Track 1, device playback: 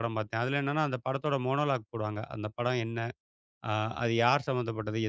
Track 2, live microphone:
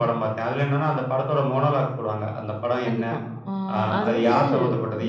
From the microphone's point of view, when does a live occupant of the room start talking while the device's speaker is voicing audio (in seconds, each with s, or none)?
2.9 s